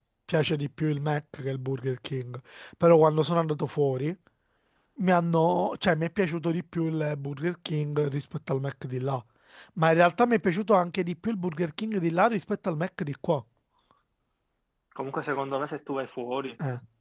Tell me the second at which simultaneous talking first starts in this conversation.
none

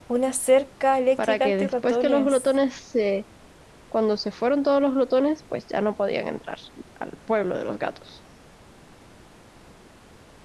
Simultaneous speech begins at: 1.2 s

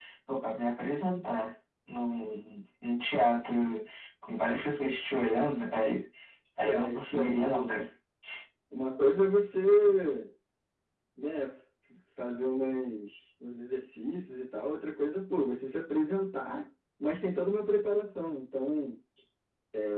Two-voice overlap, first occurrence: 6.6 s

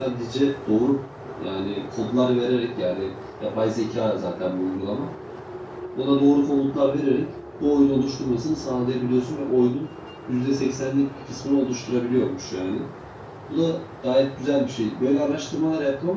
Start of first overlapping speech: none

